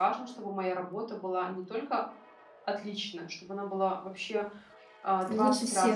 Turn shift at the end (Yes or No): No